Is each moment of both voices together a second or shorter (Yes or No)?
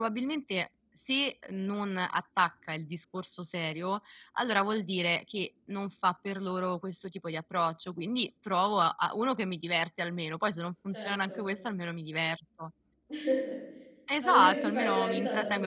No